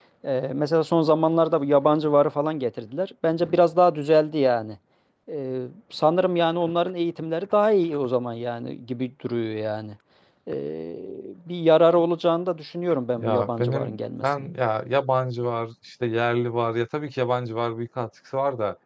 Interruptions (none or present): present